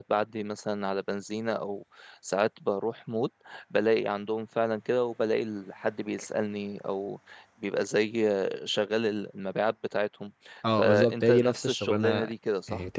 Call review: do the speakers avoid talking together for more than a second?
No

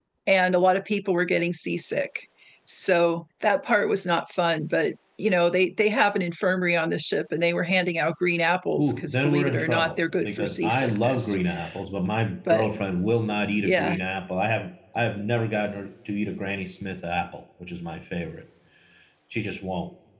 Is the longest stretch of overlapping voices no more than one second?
No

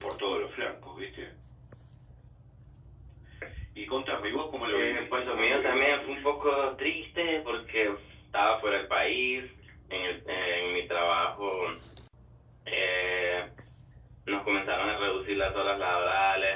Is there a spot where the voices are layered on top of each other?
Yes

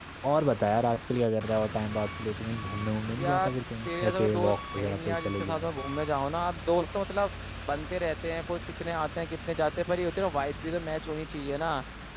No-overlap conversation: No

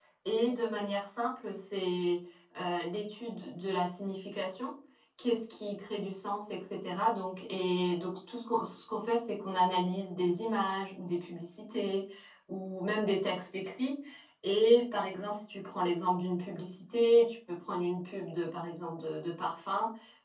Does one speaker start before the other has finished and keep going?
No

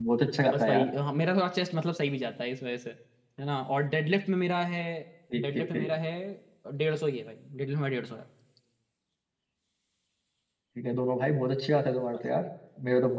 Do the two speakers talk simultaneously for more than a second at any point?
No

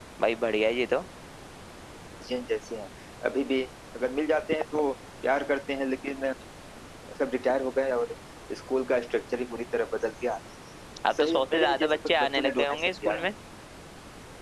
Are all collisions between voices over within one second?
No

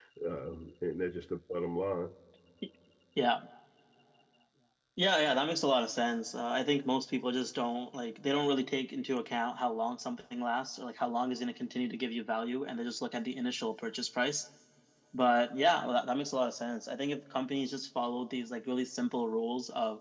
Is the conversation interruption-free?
Yes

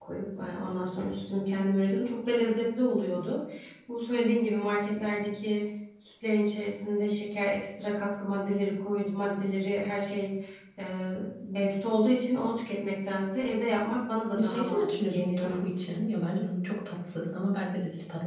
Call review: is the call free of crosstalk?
No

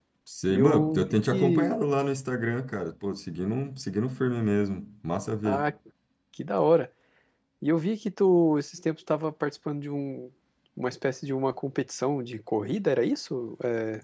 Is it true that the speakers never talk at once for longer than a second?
No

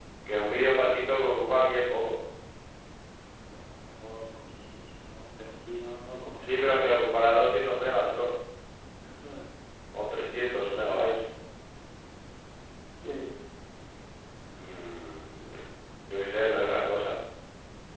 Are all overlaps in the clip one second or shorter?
Yes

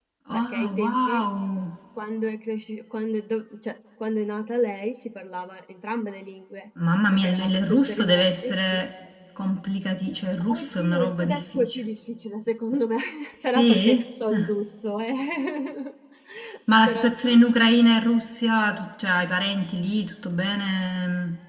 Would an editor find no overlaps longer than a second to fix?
No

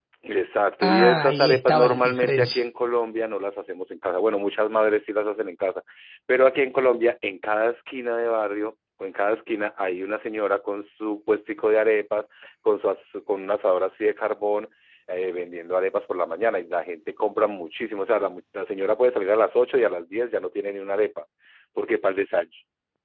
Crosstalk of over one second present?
Yes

